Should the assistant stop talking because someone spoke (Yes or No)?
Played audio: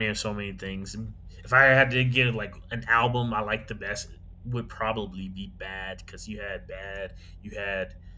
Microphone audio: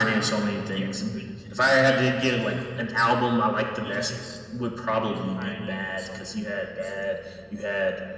Yes